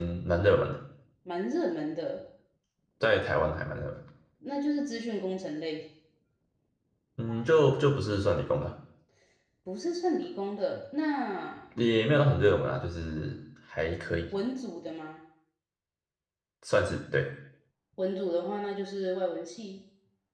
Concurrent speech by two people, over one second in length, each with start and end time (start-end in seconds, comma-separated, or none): none